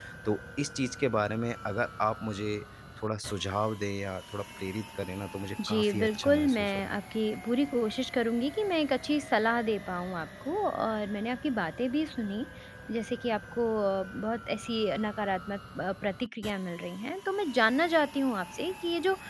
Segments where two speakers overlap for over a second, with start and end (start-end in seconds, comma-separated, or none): 5.7-7.0